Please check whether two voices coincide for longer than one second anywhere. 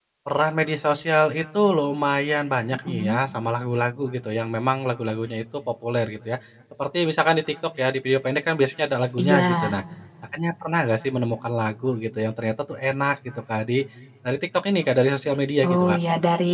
No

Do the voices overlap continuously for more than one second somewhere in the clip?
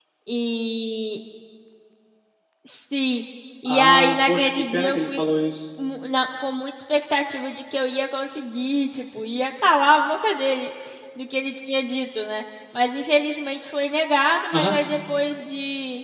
Yes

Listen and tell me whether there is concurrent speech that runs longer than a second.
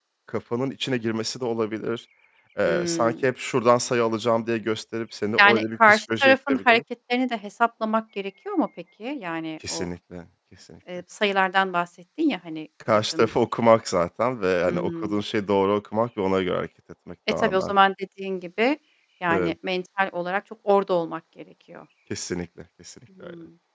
Yes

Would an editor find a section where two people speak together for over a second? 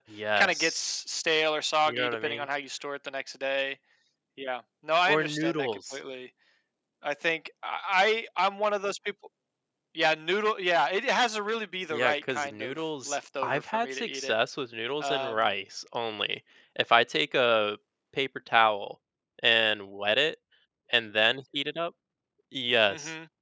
Yes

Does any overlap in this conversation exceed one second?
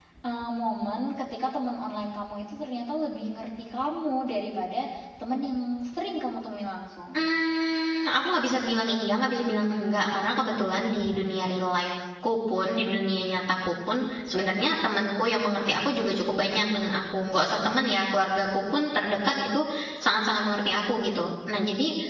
No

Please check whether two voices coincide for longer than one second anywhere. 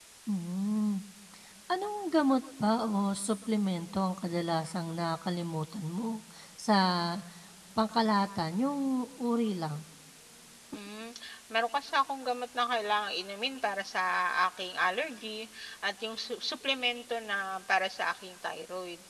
No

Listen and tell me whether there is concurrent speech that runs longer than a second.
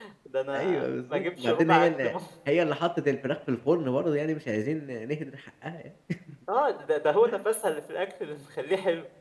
Yes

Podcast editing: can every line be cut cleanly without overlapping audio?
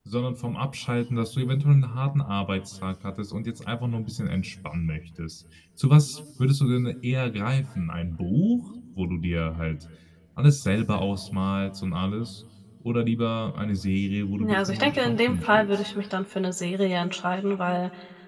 No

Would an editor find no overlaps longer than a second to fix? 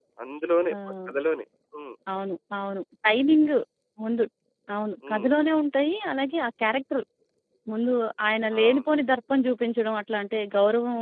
Yes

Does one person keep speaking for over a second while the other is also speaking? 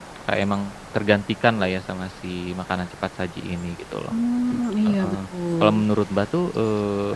No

